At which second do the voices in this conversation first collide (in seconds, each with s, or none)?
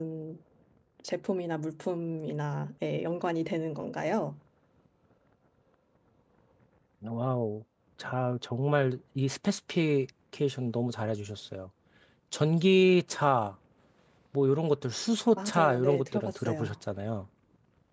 15.4 s